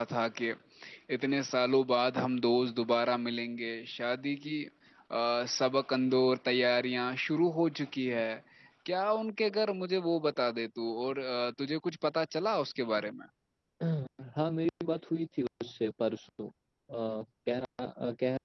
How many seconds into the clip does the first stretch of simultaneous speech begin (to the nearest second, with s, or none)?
none